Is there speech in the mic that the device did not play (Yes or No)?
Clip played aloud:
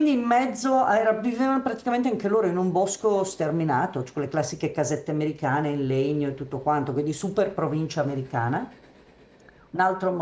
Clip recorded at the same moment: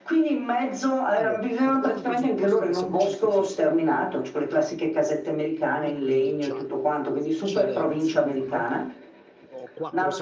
Yes